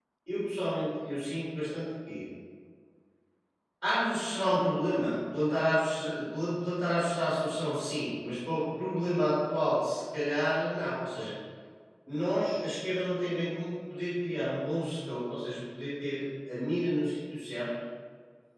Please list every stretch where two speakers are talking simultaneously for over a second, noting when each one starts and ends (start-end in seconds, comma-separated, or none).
none